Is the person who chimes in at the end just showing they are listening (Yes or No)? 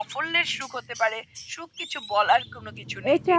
No